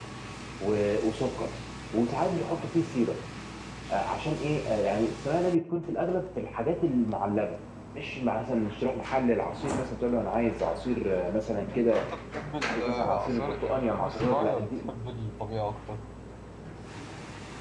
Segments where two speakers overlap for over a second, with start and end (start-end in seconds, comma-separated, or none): 12.7-14.9